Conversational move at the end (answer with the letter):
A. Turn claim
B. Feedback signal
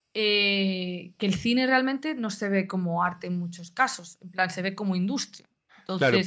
A